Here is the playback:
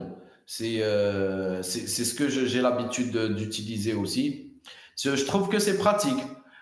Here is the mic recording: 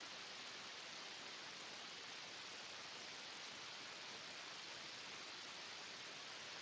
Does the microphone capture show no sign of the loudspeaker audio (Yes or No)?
Yes